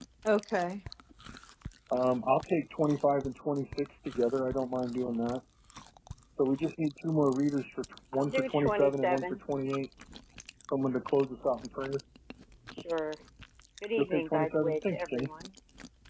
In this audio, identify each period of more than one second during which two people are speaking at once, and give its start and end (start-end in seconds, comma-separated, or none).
8.1-9.4, 14.0-15.3